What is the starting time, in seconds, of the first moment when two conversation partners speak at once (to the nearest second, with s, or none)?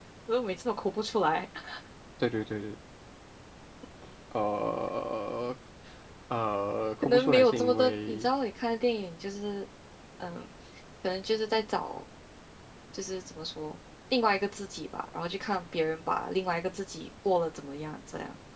7 s